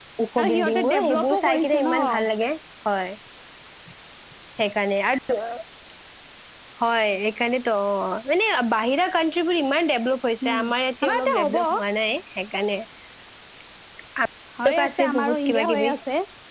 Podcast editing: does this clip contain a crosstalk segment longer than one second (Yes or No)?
Yes